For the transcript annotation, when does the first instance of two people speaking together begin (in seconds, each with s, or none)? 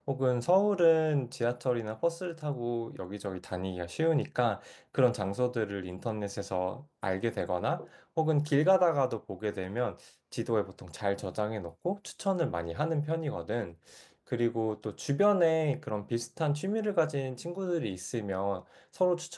none